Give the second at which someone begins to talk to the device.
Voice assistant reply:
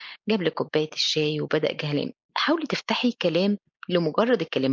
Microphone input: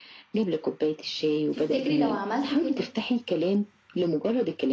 1.5 s

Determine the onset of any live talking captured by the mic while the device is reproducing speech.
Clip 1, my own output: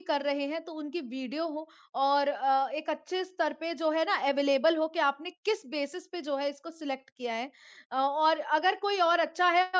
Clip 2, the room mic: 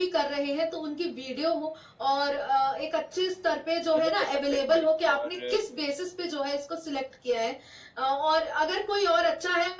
4.0 s

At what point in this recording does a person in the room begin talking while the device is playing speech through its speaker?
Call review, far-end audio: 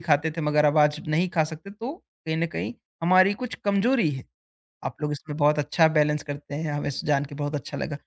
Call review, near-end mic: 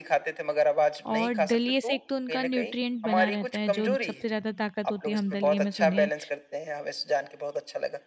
1.0 s

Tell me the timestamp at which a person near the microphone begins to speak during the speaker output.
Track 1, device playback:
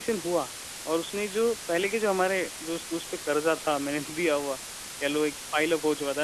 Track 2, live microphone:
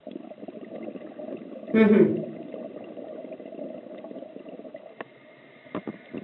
1.5 s

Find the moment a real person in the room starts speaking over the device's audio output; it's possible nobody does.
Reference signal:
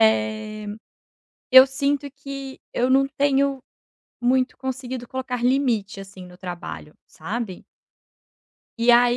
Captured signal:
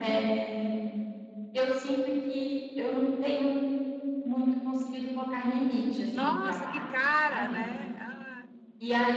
6.1 s

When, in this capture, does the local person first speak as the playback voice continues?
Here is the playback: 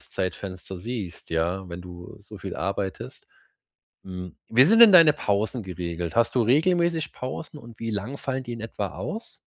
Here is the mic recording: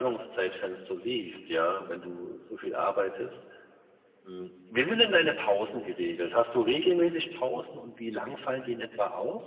none

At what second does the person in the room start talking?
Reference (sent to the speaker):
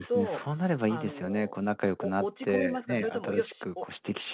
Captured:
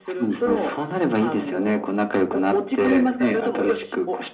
none

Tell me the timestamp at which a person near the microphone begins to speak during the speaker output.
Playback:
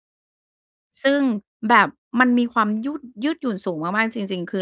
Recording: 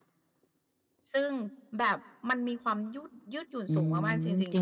3.7 s

